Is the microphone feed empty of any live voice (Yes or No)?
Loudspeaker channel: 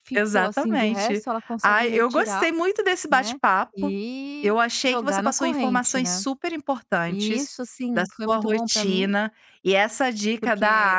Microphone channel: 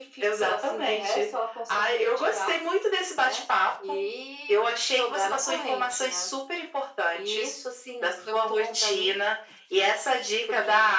Yes